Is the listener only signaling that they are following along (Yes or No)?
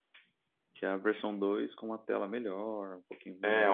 No